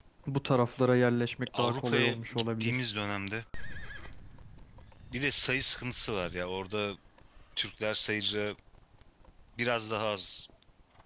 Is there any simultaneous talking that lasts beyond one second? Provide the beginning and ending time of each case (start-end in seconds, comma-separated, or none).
1.6-2.8